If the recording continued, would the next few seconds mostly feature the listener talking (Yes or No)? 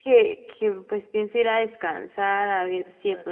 No